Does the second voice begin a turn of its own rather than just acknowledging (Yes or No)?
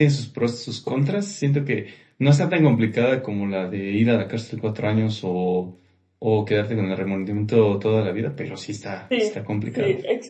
Yes